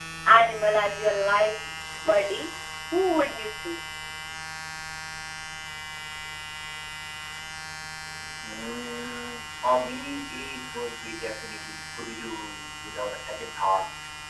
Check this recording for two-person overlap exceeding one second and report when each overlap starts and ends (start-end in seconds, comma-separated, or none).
none